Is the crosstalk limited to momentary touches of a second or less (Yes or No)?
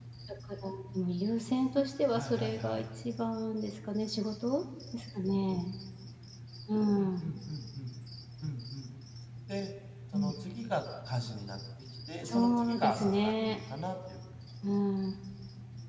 No